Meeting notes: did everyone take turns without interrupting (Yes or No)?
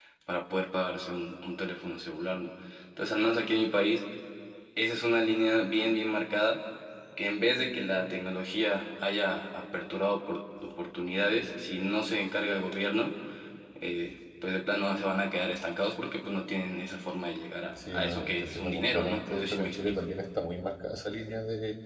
No